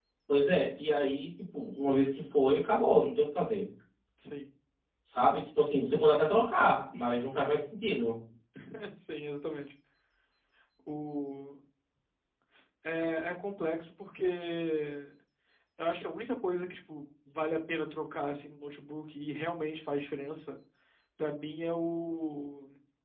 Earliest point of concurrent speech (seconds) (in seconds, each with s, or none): none